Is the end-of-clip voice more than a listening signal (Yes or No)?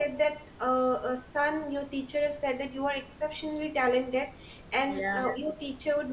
No